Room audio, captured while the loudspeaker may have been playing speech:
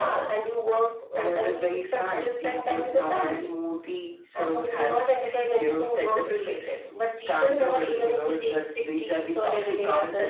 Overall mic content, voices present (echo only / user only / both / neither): echo only